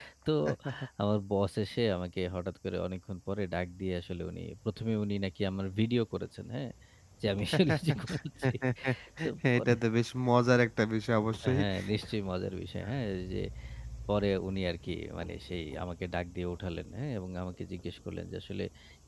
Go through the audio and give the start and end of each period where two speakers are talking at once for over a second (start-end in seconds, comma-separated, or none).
none